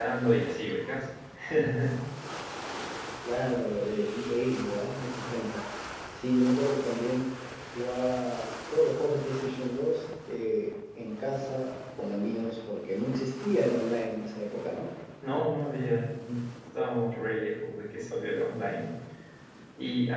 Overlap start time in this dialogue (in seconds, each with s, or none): none